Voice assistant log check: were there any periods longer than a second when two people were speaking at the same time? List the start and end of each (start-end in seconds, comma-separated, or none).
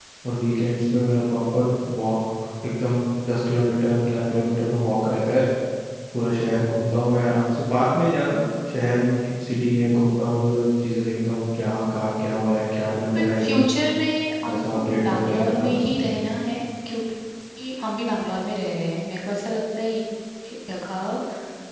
14.5-15.9